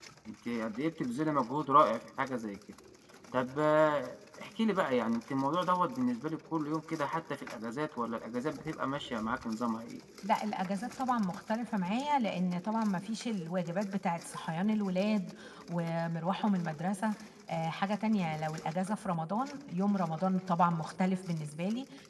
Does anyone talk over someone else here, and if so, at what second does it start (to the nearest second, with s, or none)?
none